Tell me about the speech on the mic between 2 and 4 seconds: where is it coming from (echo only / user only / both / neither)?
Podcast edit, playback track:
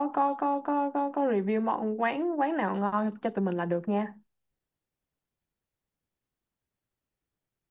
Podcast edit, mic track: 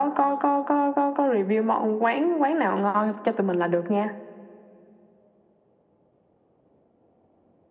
echo only